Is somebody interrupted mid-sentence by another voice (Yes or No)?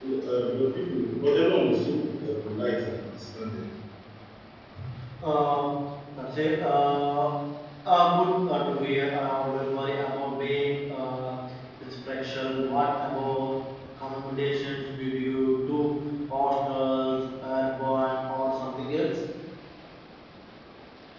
No